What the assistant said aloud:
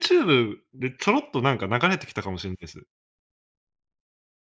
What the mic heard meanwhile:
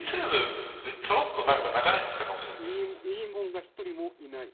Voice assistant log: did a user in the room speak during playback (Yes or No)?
Yes